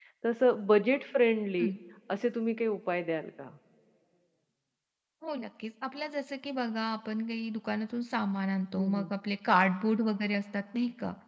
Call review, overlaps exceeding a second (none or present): none